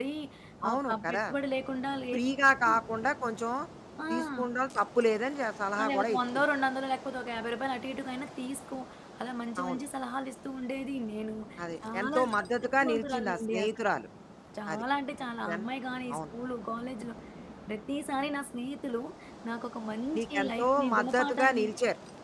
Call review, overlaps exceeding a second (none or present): present